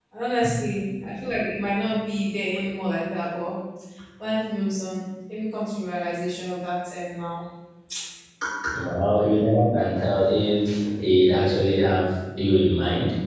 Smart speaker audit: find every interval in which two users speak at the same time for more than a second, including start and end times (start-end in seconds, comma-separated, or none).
none